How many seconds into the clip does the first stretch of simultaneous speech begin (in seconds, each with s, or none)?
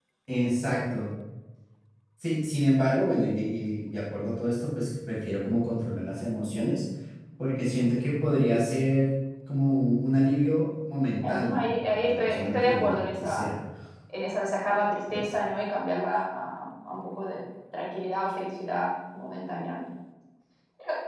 11.2 s